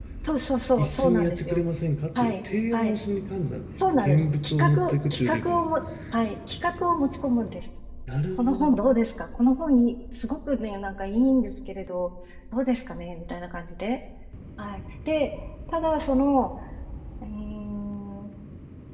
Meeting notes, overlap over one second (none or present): present